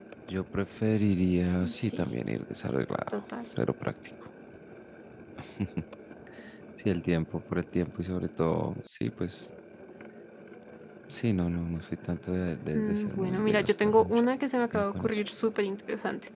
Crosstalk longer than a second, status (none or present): present